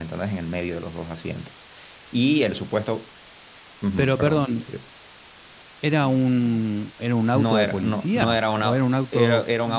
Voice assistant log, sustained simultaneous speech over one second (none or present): present